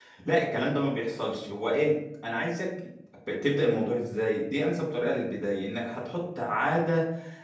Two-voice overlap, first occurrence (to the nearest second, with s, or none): none